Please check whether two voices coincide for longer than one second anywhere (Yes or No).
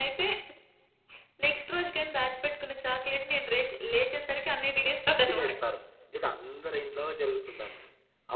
No